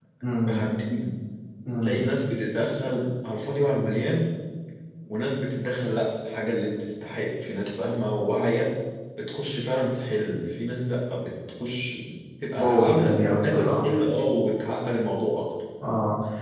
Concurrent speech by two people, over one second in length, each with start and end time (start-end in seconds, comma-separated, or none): 12.6-13.8